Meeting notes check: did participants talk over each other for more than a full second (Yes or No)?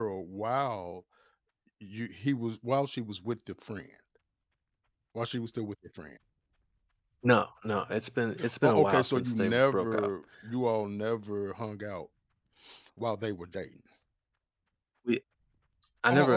Yes